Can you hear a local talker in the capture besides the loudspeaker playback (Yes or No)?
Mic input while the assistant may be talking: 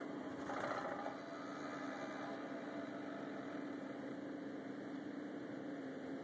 No